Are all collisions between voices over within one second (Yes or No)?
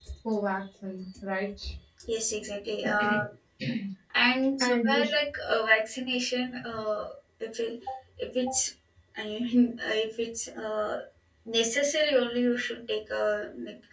Yes